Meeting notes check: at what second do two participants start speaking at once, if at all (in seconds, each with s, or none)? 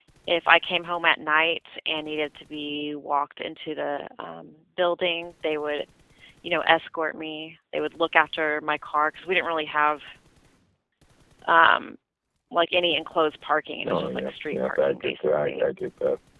13.8 s